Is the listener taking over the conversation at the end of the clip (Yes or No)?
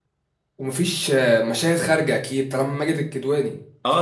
Yes